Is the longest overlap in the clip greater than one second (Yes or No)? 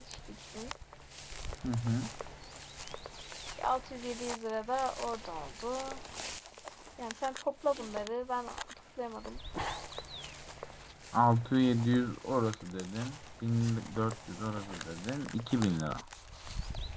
No